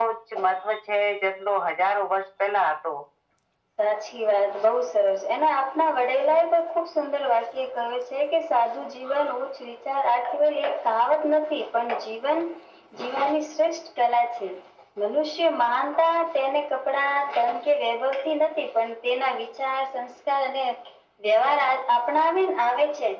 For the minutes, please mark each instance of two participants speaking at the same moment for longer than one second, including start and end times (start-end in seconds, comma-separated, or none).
none